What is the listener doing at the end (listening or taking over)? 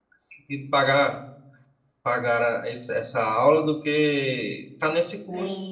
taking over